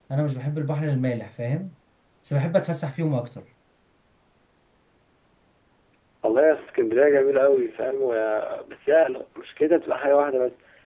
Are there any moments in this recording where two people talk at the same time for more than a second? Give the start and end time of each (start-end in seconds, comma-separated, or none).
none